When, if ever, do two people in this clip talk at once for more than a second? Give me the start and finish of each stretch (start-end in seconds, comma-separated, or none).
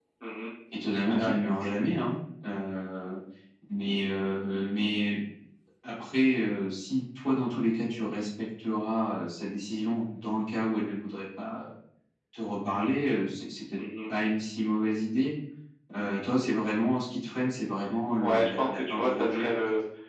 18.2-19.6